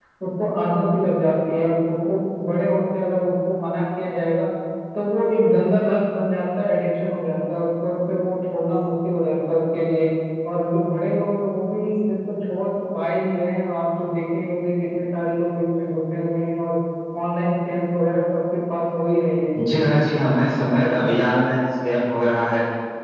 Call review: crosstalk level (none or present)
none